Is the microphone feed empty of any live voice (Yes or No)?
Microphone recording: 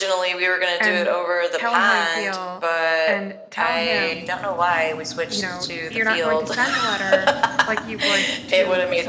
No